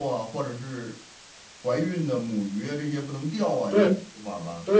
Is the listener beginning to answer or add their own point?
Yes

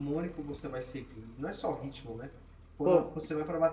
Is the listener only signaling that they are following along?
Yes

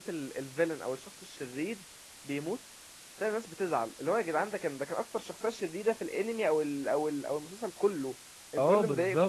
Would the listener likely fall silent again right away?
No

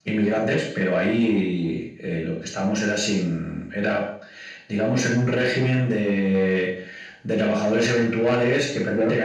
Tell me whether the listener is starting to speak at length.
No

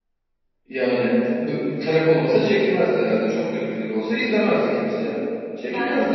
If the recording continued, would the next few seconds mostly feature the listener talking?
Yes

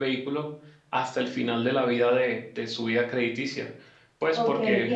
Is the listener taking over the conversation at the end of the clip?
Yes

